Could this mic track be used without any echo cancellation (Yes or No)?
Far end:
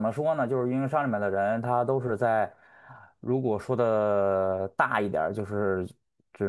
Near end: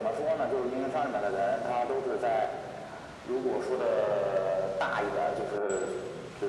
No